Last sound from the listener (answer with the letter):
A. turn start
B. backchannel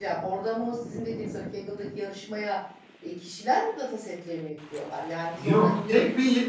A